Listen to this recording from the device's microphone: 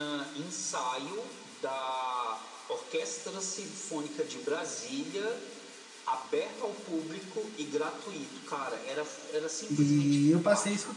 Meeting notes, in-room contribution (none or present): present